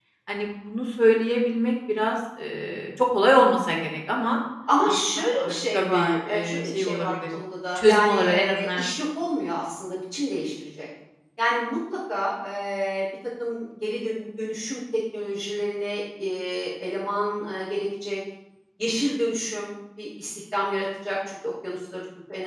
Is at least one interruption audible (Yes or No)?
Yes